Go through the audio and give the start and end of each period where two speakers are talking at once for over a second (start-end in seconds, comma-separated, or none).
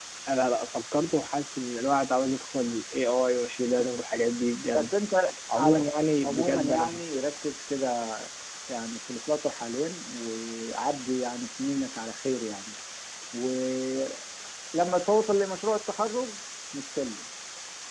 5.5-7.0